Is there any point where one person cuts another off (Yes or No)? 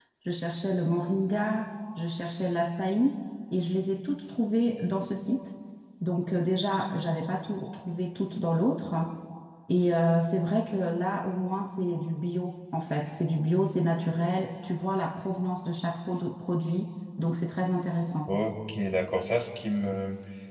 No